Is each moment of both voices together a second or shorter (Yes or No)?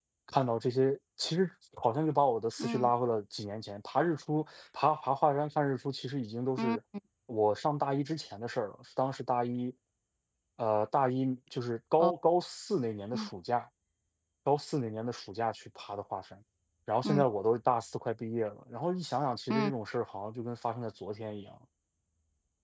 Yes